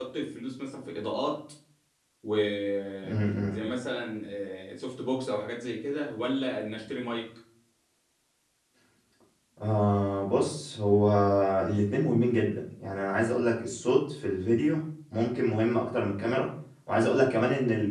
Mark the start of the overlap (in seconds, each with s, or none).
none